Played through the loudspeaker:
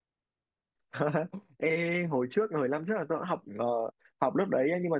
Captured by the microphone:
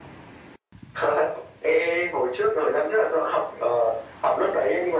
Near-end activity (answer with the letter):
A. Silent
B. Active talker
A